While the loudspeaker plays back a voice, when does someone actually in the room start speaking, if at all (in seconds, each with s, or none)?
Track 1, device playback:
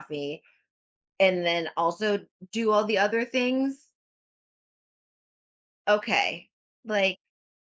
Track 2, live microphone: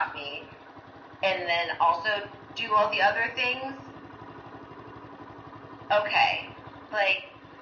none